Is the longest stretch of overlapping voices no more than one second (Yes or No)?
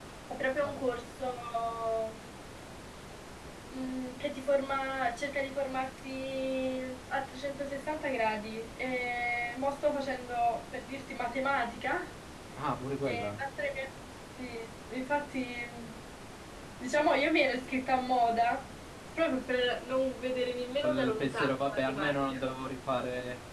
No